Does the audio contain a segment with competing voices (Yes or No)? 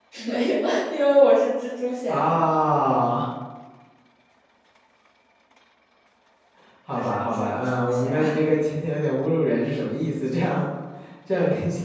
Yes